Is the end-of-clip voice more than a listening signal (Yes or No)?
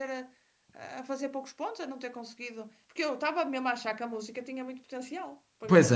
Yes